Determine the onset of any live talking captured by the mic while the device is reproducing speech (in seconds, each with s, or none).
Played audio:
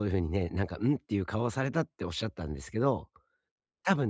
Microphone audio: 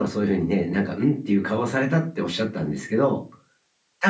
none